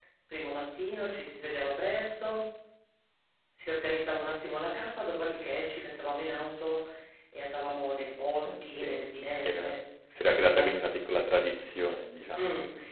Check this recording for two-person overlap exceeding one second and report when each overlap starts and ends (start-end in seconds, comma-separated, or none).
8.4-9.8